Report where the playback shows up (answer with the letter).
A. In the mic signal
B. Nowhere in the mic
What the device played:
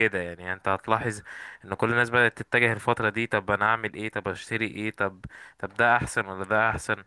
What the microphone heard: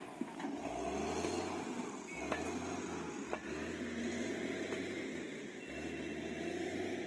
B